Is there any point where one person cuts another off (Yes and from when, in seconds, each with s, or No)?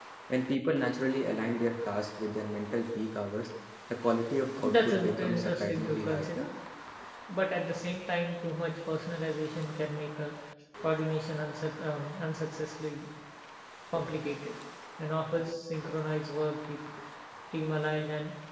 Yes, from 4.6 s